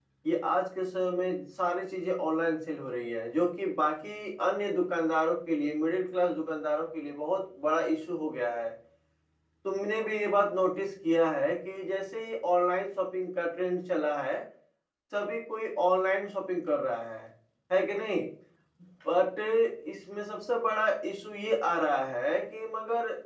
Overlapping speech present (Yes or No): No